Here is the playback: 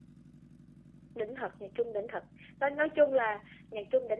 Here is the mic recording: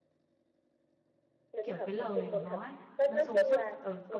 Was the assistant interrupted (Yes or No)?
Yes